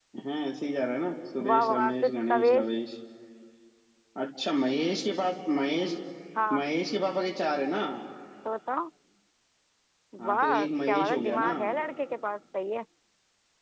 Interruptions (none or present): present